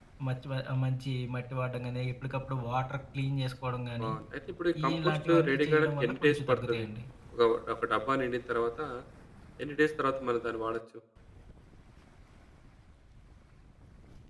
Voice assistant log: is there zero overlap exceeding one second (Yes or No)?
No